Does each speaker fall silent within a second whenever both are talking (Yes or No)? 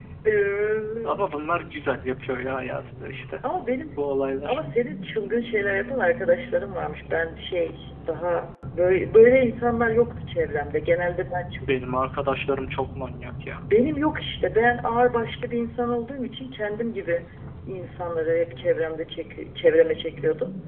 Yes